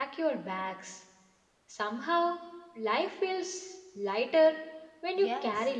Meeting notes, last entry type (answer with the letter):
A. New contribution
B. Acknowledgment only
A